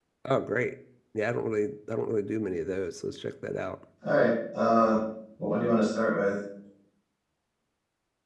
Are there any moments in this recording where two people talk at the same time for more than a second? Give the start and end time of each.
none

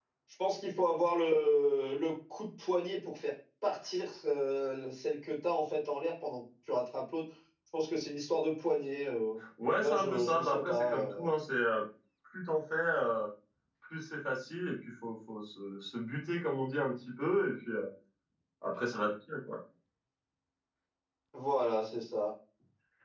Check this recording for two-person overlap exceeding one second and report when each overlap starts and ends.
9.8-11.3

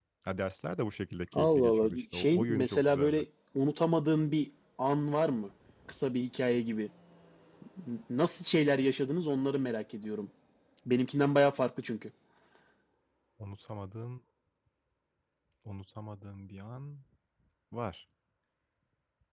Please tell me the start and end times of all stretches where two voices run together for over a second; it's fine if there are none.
1.3-3.2

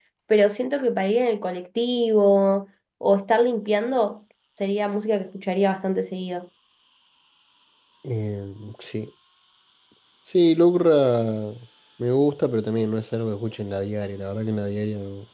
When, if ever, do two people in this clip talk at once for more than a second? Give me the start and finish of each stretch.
none

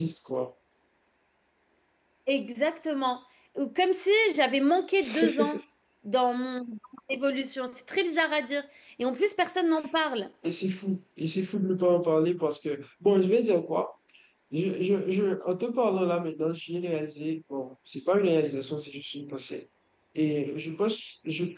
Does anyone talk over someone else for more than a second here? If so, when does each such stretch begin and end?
none

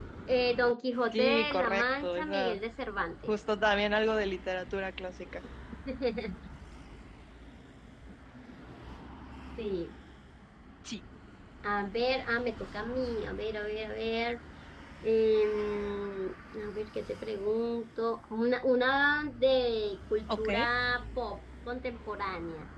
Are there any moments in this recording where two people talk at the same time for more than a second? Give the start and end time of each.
1.1-2.6

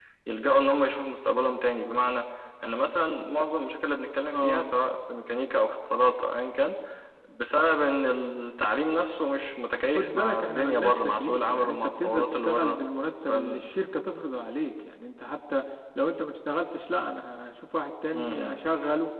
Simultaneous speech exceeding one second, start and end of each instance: 10.0-12.8

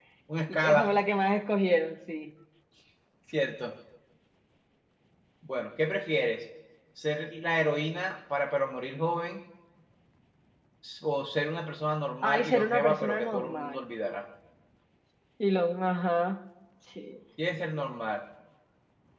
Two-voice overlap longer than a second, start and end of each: 12.3-13.8

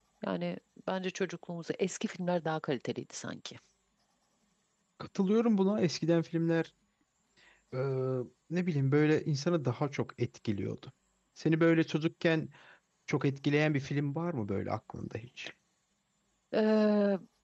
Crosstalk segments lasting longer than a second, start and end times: none

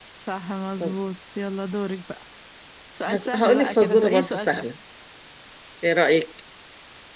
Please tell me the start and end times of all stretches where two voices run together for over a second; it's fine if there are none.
3.1-4.7

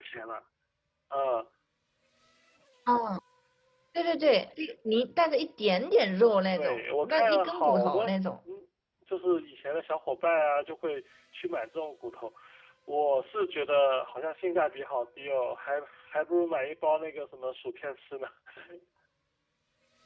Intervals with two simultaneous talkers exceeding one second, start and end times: 6.6-8.1

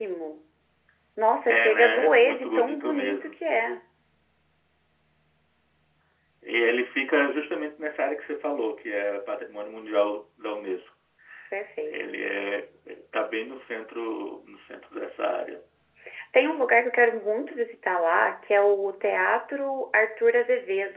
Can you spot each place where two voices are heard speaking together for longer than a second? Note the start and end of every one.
1.5-3.3

